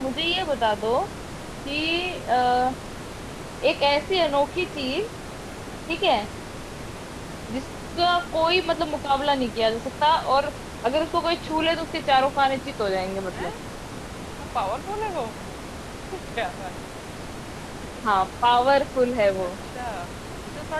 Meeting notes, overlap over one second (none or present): none